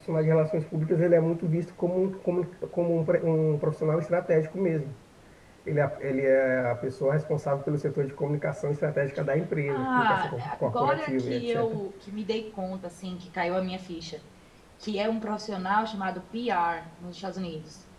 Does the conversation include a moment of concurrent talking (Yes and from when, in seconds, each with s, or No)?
Yes, from 9.7 s